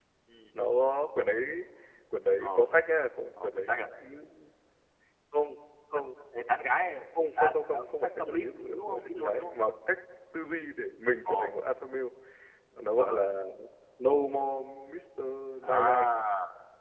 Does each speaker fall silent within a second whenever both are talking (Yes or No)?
No